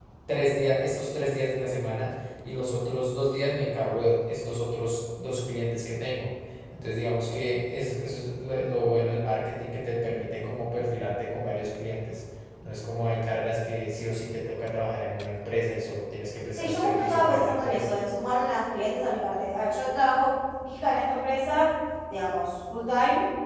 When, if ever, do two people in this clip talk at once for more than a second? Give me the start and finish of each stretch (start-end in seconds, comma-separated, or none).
16.5-17.9